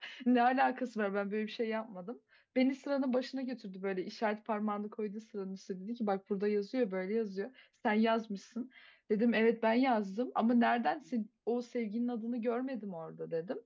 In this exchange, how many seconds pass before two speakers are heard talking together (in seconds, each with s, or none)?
none